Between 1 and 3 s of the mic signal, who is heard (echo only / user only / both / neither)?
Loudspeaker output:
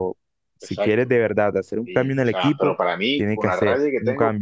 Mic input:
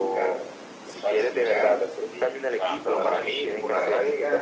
both